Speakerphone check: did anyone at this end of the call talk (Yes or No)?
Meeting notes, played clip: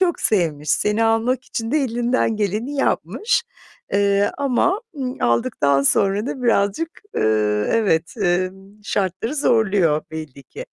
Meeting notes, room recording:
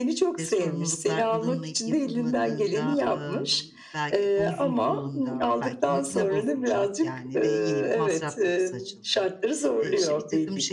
Yes